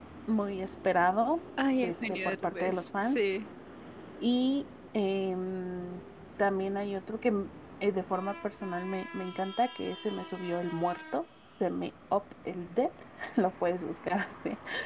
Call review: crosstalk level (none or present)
present